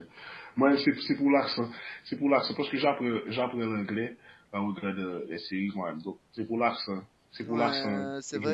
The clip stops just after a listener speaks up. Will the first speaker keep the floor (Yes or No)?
No